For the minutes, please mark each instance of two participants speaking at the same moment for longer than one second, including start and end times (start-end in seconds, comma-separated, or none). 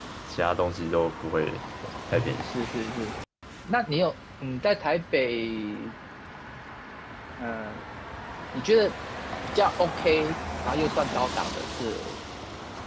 none